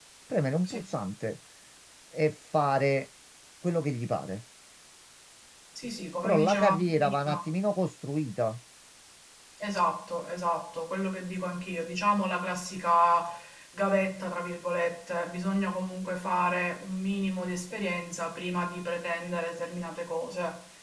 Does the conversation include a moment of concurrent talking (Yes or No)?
Yes